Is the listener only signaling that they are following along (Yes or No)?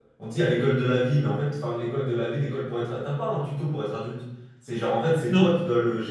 Yes